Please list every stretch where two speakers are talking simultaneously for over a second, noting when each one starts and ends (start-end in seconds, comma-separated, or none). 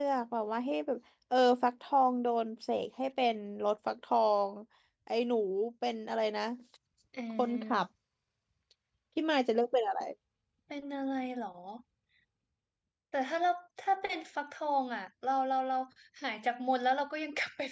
none